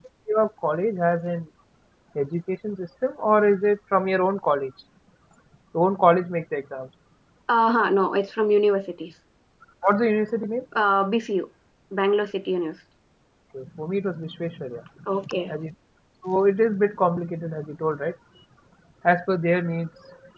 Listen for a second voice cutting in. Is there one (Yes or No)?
No